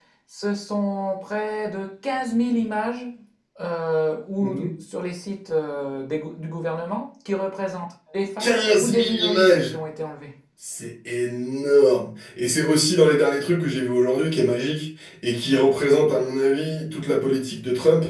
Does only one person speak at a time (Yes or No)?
No